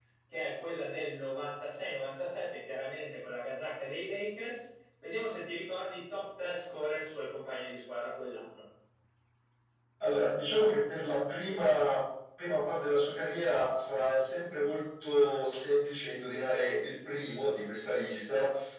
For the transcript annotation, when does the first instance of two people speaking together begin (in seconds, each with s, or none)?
none